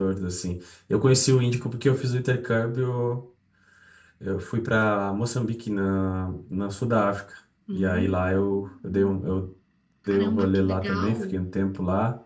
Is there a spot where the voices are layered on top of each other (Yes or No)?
Yes